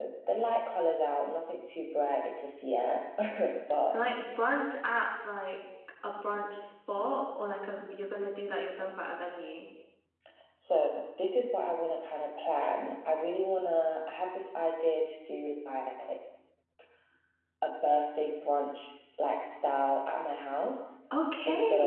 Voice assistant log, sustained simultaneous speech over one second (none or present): none